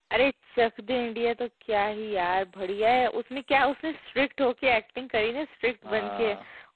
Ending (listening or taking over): listening